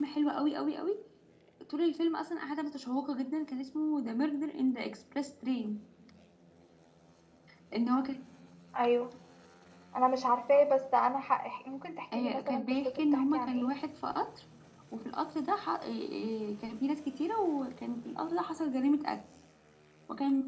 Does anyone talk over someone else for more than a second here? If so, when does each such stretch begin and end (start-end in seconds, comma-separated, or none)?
12.2-13.7